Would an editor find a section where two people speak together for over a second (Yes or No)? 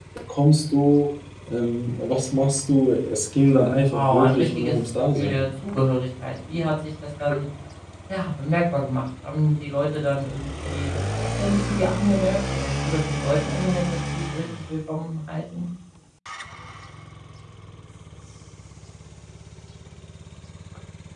Yes